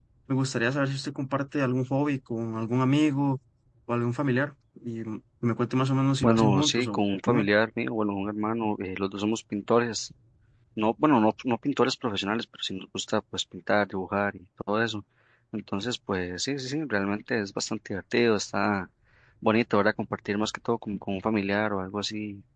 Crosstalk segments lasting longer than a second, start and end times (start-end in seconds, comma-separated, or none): 6.2-7.5